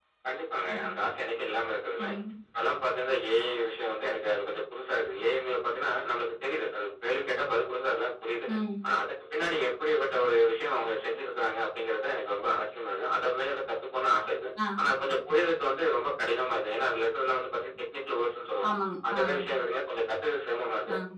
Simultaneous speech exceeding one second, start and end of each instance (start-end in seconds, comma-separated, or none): none